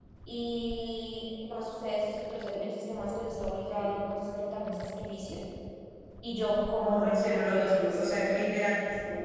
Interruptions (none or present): present